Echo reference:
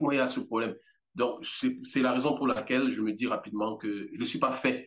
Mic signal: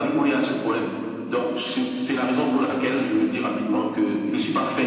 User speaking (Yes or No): No